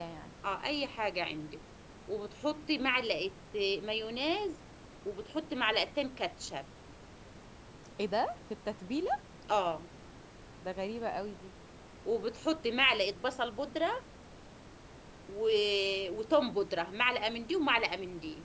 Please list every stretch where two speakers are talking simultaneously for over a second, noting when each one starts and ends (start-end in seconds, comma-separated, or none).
none